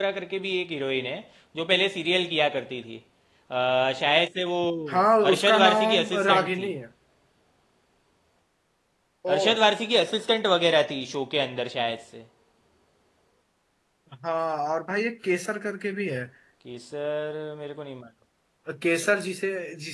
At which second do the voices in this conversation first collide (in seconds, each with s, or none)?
5.3 s